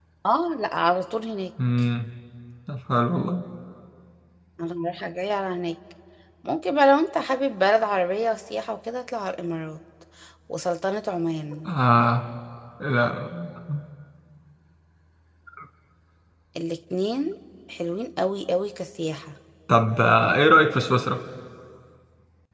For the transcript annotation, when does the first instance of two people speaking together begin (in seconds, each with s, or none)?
none